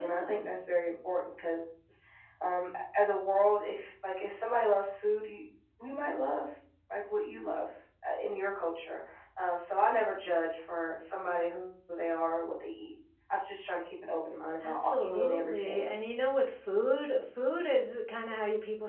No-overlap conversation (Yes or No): No